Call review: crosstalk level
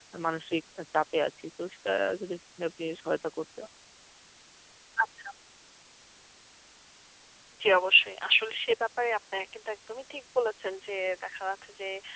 none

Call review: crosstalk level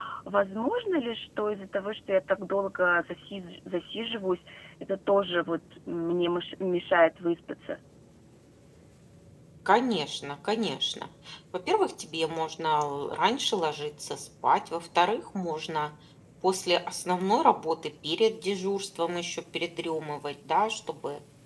none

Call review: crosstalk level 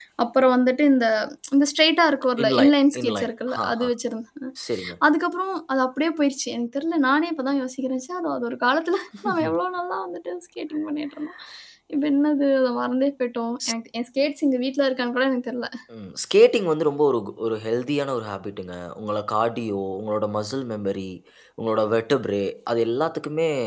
present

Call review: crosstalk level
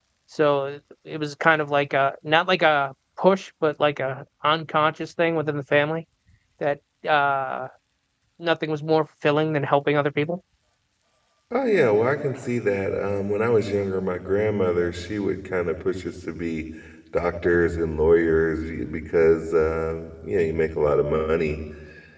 none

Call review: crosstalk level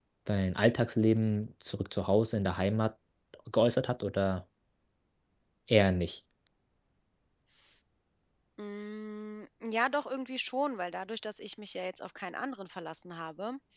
none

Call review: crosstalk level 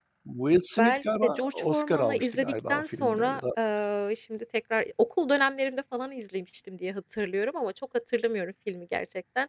present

